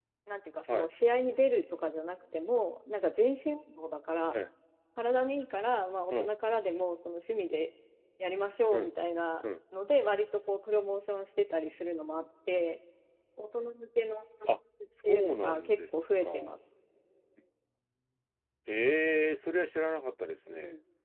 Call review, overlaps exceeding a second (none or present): present